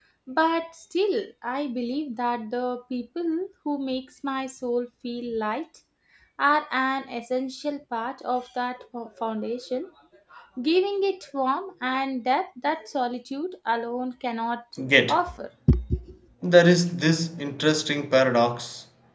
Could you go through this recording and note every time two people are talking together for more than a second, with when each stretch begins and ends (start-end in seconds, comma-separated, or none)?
none